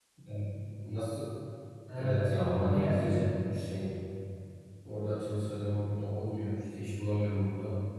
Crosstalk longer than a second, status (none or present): present